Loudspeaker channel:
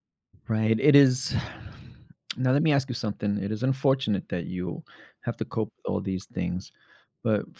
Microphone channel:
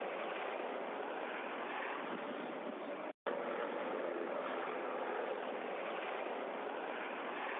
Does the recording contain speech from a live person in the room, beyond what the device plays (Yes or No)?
No